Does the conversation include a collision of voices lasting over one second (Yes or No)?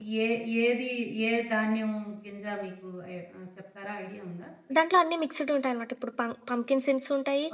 No